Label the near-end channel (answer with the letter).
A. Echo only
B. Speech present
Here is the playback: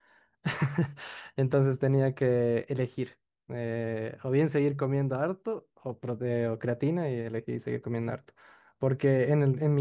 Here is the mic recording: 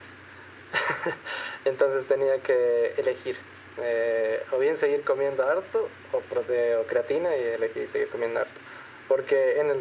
A